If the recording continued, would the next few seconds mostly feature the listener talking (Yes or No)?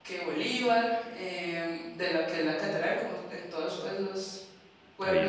No